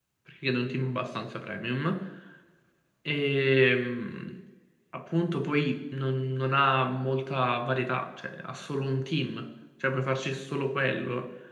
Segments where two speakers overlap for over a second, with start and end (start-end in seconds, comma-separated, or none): none